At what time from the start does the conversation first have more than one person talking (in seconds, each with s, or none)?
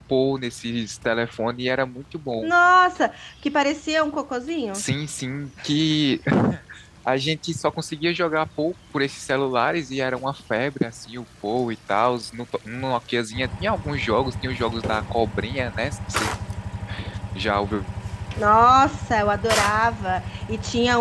none